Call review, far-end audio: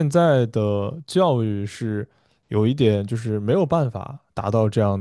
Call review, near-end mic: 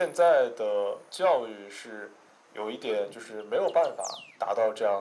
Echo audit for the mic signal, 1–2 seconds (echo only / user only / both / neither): echo only